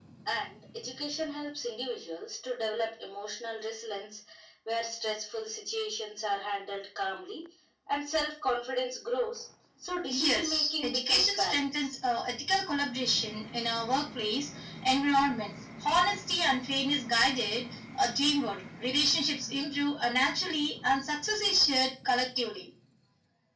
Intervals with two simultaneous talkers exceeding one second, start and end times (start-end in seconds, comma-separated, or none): 10.1-11.9